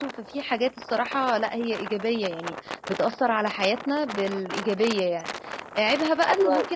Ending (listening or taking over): listening